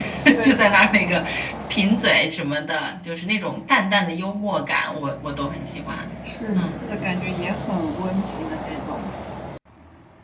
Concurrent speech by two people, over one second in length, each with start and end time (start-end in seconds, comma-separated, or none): none